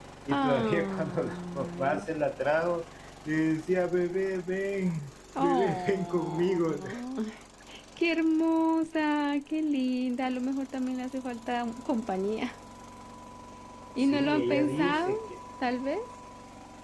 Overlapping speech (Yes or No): Yes